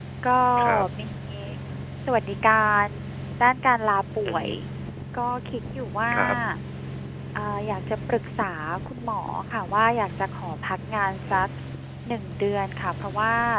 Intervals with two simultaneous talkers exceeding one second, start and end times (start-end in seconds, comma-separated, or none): none